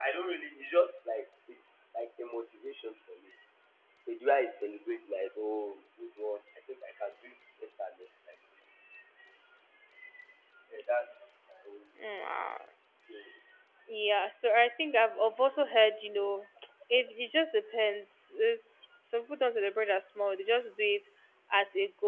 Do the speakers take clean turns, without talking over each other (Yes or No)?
Yes